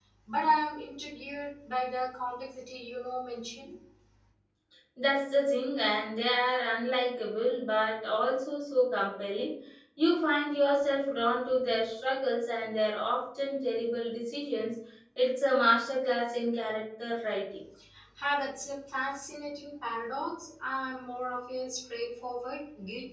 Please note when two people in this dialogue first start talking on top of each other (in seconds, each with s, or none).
none